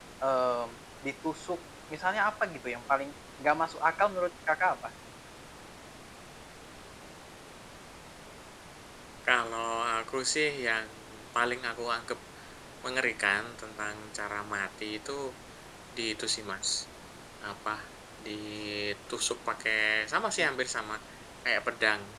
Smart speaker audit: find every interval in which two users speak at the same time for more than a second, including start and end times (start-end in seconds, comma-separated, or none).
none